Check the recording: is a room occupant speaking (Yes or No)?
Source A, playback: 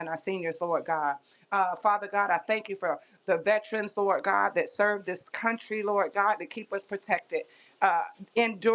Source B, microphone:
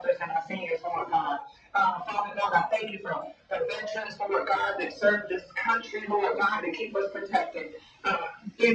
No